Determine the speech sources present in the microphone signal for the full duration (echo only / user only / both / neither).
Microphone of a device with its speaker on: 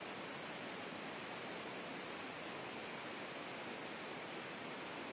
neither